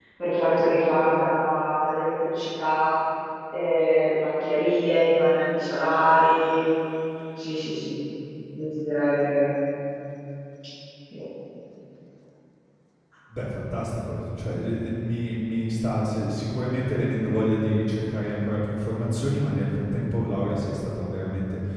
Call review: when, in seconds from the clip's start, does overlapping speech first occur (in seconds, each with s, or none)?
none